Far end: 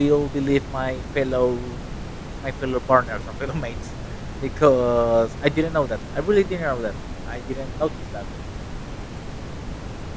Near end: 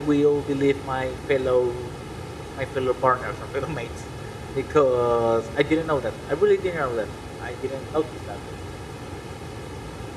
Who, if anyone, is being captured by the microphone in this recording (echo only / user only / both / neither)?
echo only